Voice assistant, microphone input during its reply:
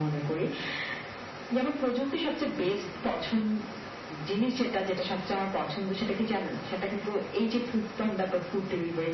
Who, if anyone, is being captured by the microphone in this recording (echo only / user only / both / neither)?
both